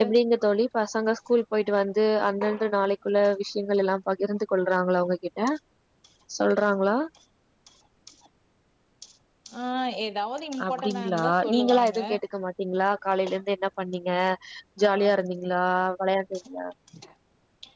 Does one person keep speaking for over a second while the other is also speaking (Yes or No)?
Yes